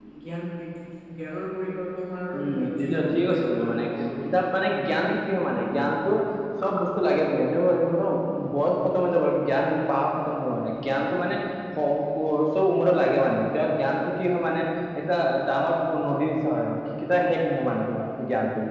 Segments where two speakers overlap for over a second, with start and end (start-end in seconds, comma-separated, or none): 2.4-3.8